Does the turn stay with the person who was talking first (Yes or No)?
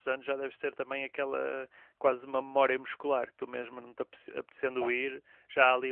Yes